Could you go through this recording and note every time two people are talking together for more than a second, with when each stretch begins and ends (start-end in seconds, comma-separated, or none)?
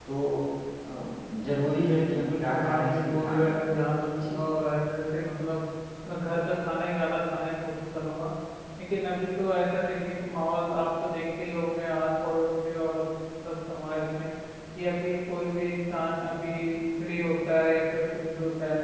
1.9-3.6